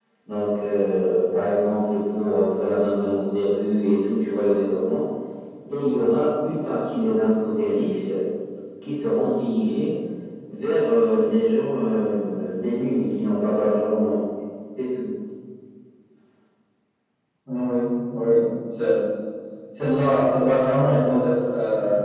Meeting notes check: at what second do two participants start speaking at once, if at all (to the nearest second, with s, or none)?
none